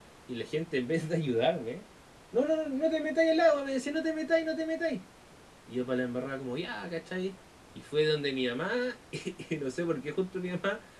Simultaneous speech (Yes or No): No